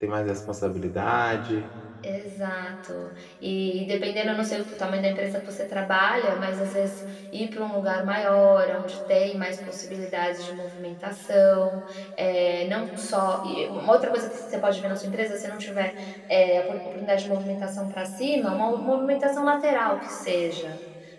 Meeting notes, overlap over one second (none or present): none